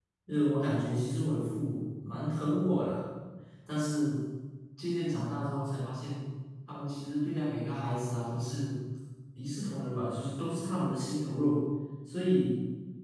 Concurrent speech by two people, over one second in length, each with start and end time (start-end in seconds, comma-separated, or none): none